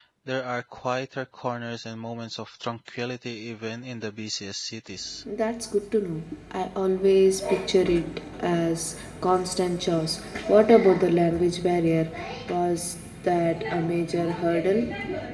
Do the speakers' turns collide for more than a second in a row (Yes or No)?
No